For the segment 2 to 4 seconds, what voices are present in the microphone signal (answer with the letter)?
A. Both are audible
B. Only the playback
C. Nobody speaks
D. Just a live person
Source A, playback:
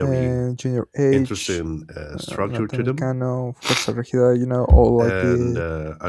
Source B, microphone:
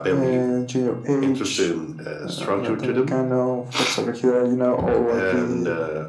B